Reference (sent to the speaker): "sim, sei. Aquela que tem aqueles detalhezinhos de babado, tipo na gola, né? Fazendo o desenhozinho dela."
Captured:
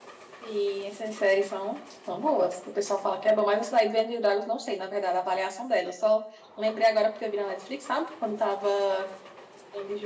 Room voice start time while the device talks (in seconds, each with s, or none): 0.4 s